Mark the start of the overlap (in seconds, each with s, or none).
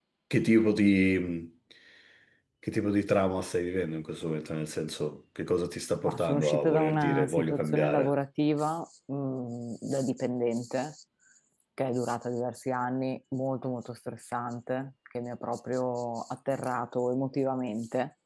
6.0 s